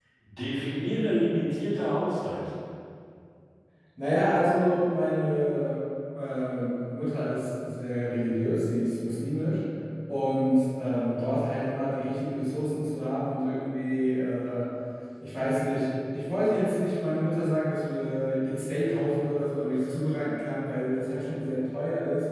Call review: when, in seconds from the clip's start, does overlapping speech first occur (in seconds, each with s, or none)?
none